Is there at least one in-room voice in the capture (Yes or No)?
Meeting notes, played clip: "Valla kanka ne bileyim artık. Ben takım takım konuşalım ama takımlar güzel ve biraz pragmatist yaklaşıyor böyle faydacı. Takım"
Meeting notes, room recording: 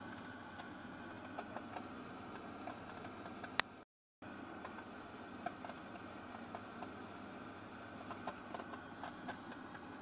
No